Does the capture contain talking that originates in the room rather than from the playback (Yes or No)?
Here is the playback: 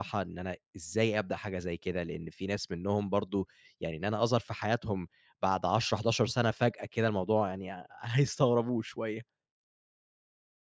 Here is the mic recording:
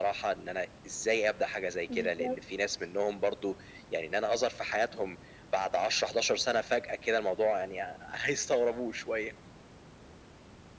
Yes